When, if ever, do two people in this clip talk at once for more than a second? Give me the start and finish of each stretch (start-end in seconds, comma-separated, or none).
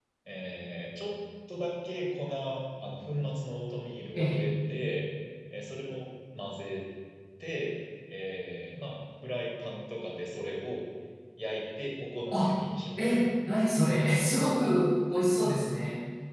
none